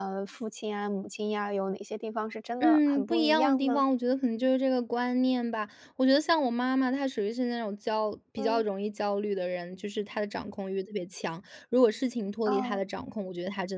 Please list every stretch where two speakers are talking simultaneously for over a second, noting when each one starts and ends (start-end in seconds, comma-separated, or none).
2.6-3.8